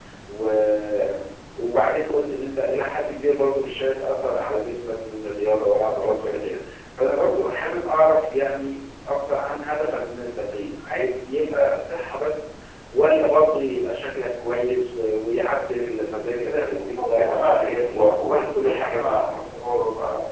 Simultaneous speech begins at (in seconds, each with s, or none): 16.5 s